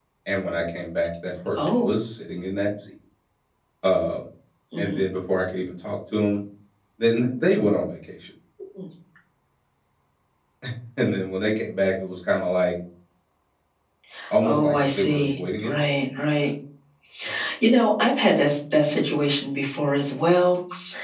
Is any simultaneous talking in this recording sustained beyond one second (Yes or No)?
Yes